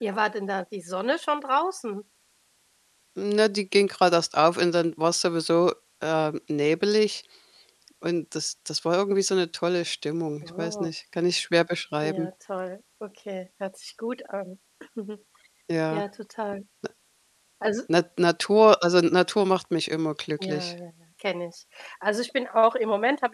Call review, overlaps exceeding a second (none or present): none